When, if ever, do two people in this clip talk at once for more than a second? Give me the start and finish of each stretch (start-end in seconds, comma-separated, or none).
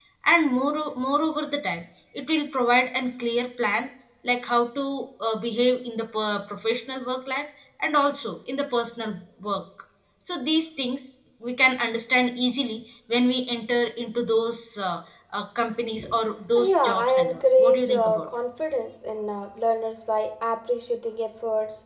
16.6-18.3